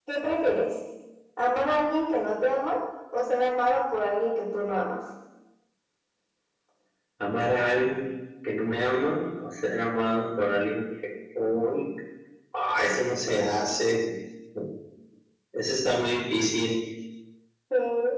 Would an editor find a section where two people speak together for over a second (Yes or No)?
No